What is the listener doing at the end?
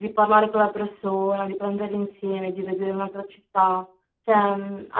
listening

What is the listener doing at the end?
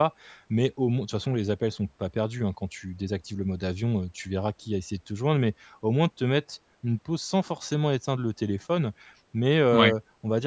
listening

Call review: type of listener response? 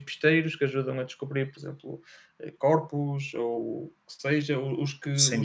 listening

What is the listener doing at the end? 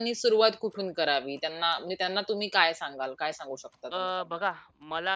taking over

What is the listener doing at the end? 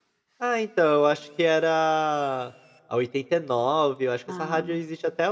listening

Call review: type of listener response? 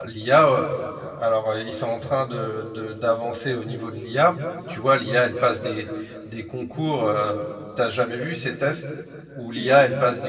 listening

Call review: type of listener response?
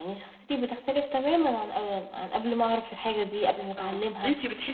taking over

